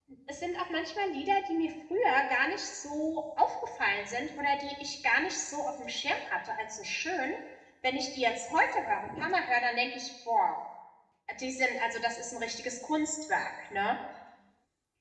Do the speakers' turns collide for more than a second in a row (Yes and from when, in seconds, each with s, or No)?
No